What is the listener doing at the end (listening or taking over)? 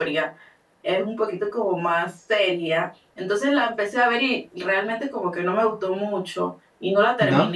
listening